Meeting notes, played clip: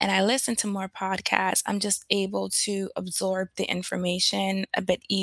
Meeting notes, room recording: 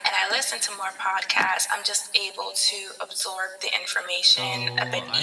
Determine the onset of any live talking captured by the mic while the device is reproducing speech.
4.1 s

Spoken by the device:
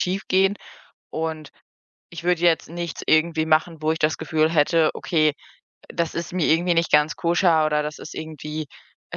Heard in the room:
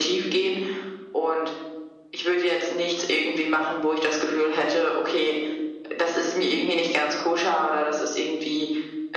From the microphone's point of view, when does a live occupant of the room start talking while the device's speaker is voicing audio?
none

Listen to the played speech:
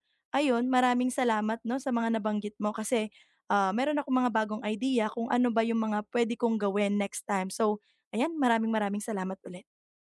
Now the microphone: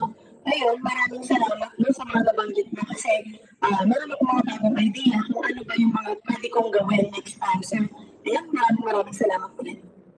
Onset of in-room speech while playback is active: none

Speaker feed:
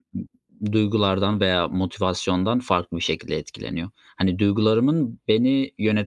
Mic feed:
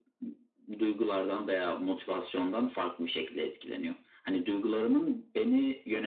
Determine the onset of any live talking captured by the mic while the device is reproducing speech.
none

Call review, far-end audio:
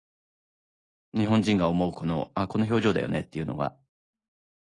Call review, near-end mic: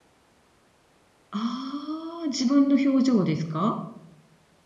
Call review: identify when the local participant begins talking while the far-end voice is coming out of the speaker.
1.3 s

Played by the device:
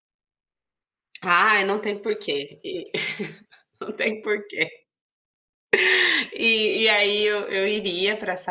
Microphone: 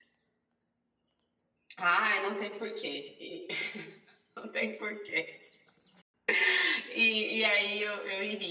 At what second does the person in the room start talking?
none

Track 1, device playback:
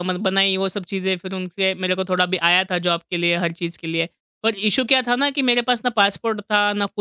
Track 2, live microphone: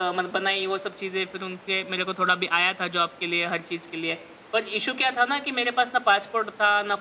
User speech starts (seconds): none

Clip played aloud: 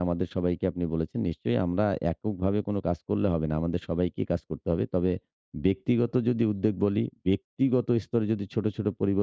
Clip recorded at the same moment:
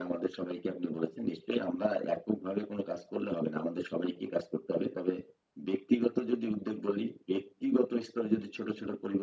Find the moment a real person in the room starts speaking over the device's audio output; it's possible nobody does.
none

